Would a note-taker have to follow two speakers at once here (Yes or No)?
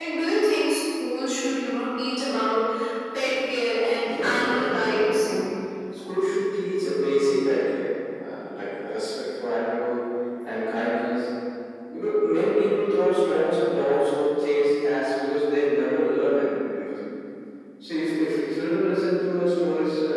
Yes